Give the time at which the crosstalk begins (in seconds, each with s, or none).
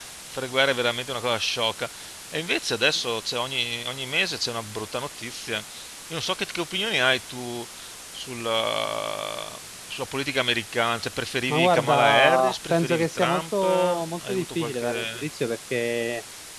11.5 s